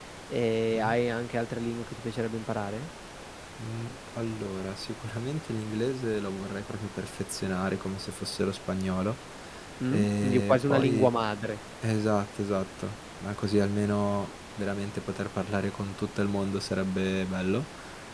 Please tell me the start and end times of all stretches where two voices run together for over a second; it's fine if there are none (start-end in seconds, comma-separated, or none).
9.9-11.1